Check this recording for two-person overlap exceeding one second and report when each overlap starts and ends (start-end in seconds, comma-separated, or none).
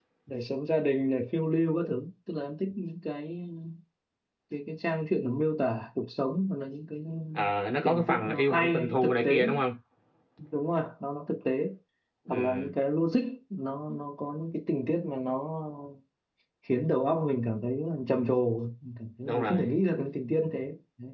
7.8-9.4